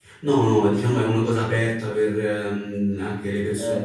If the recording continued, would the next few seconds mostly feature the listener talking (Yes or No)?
No